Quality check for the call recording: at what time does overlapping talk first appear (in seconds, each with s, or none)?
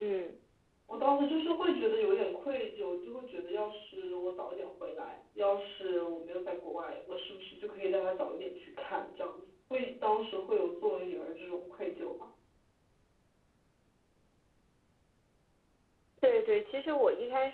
none